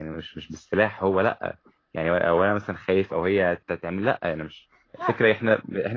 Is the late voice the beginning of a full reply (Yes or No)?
No